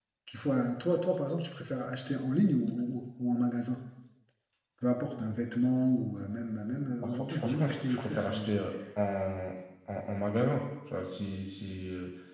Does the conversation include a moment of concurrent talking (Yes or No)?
Yes